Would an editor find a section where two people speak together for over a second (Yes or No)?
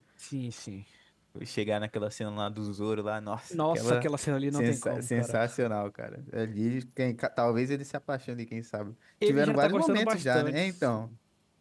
Yes